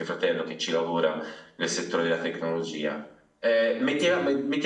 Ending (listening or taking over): listening